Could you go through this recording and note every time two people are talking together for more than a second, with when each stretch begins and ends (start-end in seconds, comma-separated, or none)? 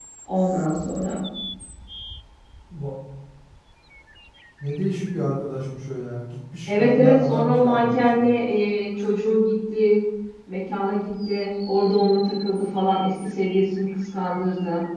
6.7-8.3